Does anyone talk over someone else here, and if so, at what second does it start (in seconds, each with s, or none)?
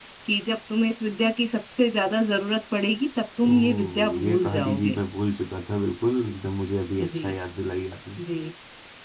3.5 s